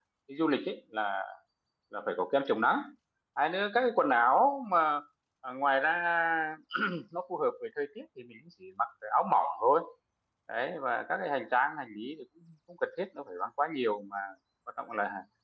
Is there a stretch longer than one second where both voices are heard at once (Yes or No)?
No